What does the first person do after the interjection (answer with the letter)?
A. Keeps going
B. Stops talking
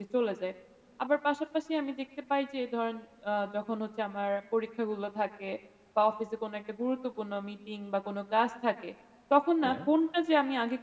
A